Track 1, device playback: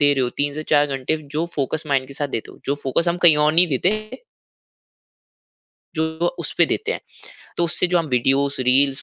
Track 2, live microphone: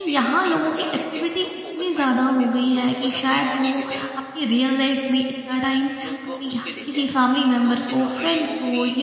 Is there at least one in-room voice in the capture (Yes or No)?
Yes